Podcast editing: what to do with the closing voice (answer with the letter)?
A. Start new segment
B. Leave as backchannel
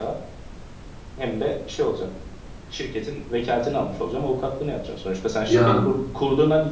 B